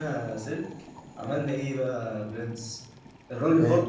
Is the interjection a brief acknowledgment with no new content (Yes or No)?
Yes